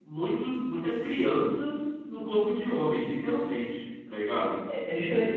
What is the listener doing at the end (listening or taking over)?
taking over